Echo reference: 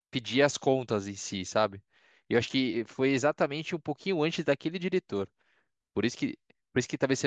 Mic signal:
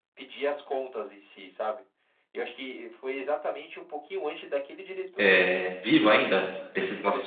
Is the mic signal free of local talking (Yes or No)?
No